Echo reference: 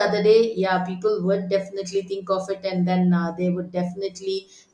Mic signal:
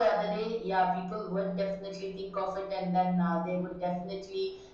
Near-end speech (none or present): none